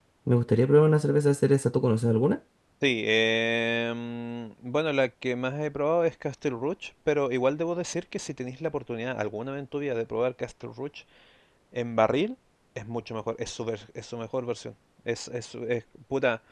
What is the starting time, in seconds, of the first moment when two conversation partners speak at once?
none

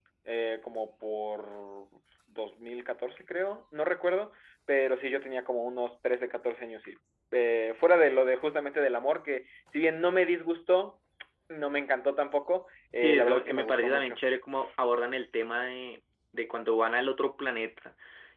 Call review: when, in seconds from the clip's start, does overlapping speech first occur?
13.0 s

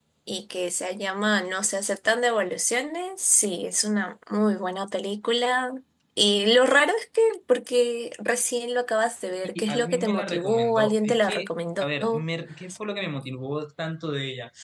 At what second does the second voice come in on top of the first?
9.6 s

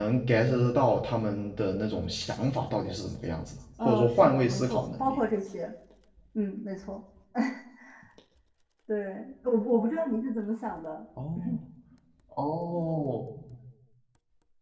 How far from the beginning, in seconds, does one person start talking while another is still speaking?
3.8 s

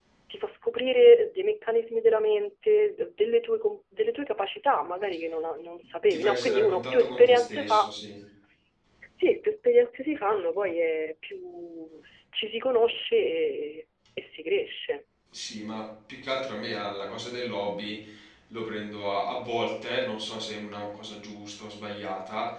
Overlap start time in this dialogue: 6.1 s

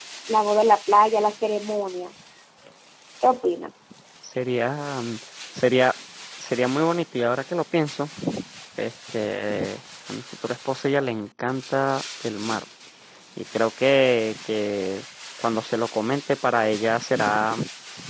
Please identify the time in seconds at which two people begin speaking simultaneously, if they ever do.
none

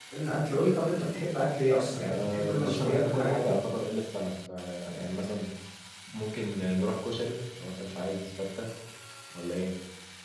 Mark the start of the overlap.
1.9 s

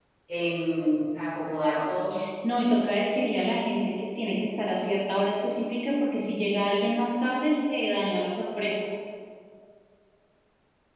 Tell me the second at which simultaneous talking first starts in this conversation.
none

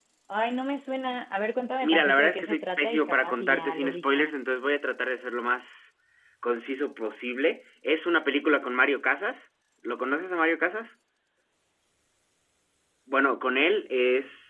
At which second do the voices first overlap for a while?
1.8 s

